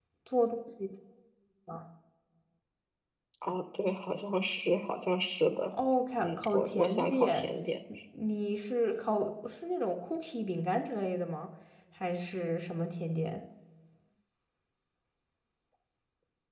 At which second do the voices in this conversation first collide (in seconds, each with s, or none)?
6.2 s